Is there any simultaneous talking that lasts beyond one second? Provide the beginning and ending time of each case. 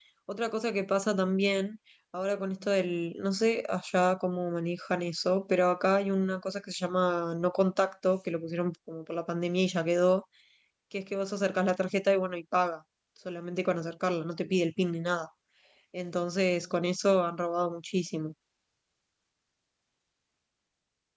none

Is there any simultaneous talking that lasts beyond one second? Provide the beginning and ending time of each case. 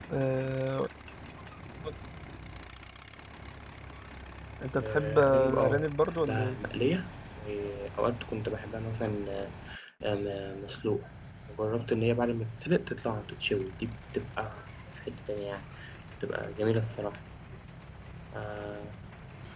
4.8-6.6

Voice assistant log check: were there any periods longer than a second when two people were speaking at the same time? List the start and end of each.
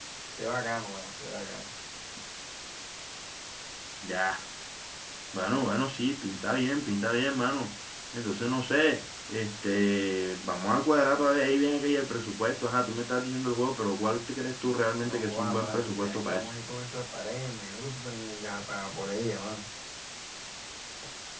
15.0-16.5

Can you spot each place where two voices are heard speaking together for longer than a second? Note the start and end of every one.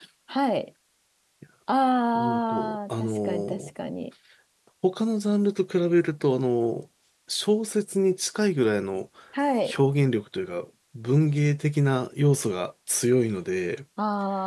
2.1-3.7

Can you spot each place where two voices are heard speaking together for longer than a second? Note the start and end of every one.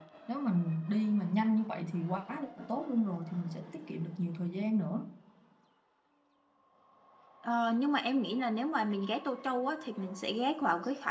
none

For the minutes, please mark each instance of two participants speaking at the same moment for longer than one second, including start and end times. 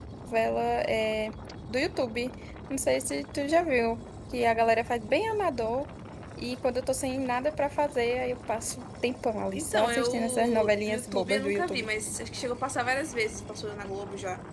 9.6-11.9

